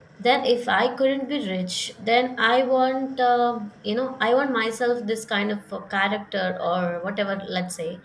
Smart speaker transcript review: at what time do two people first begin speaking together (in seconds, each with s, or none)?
none